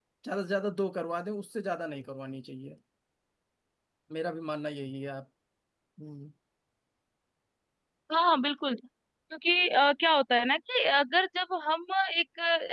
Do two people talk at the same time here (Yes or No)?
No